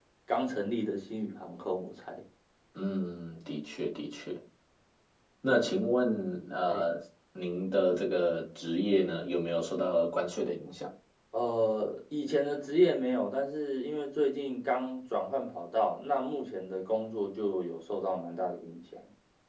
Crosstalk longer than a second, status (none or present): none